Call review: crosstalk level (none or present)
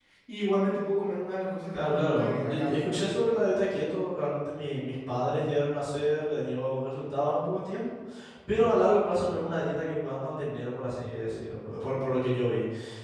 present